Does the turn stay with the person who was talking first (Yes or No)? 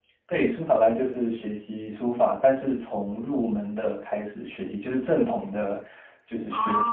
Yes